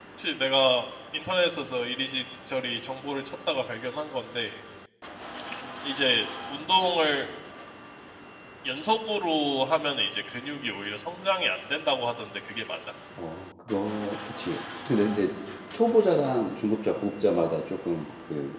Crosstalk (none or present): none